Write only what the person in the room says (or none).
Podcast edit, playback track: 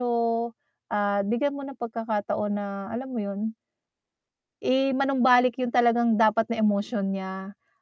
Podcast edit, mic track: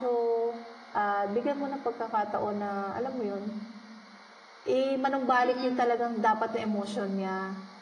Mm.